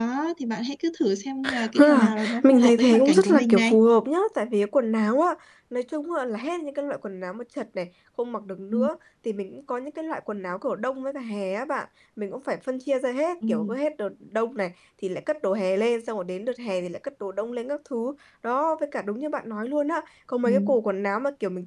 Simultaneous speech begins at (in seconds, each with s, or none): 1.7 s